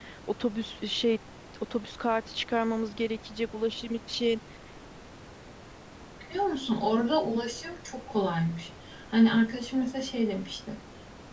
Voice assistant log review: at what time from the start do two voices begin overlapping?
none

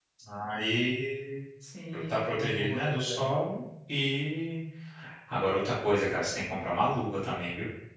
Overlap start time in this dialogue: 2 s

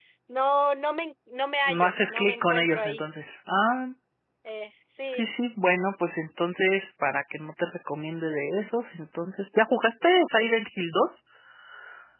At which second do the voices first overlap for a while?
2 s

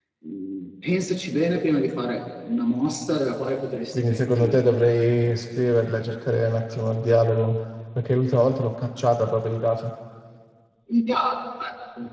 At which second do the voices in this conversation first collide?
4 s

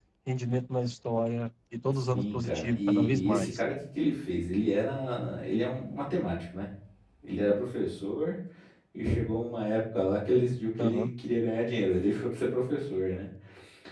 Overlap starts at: 2 s

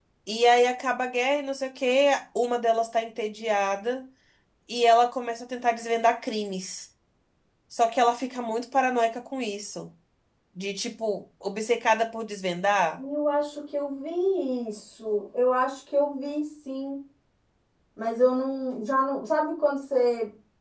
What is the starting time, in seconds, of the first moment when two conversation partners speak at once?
none

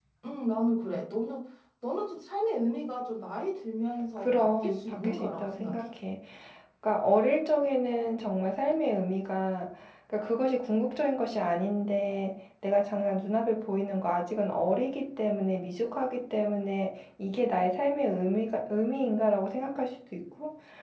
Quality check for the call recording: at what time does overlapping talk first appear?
4 s

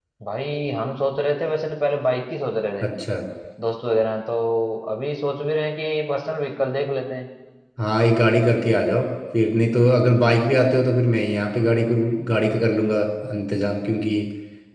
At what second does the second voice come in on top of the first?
none

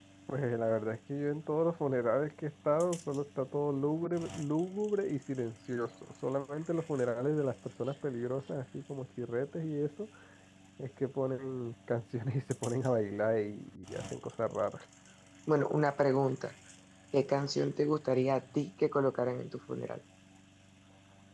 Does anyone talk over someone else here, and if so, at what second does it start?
none

